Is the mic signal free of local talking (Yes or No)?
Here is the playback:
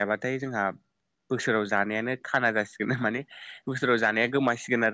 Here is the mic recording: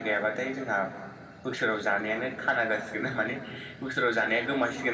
Yes